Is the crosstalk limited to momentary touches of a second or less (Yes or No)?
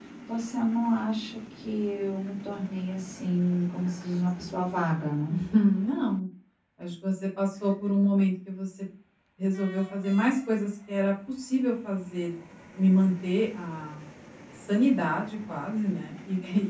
Yes